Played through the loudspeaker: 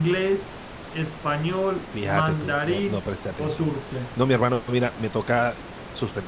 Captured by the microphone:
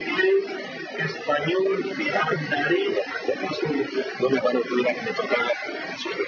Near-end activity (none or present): none